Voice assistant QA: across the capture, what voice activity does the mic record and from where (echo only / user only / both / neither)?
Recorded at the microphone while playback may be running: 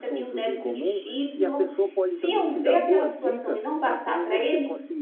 both